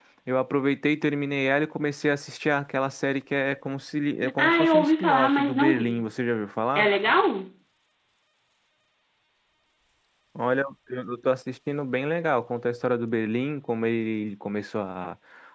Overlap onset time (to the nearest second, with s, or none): 4 s